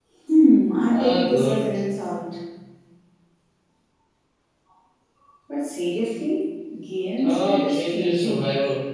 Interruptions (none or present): present